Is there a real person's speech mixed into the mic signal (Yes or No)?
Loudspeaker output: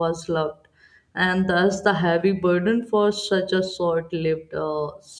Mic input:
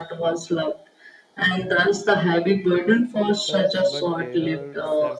Yes